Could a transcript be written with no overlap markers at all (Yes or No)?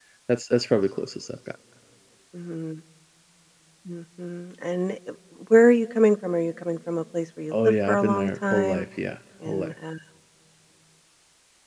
No